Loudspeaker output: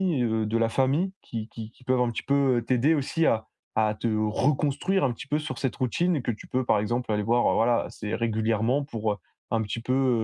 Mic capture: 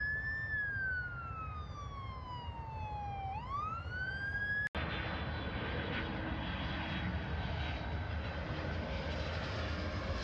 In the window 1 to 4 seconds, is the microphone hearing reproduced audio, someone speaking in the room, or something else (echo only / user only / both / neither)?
neither